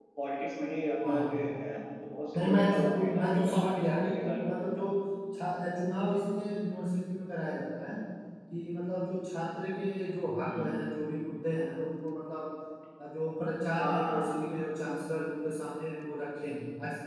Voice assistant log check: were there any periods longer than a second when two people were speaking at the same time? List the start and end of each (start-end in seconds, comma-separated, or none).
2.4-4.6